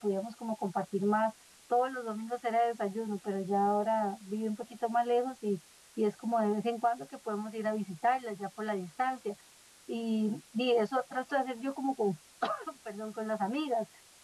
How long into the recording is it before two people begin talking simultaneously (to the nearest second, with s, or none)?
none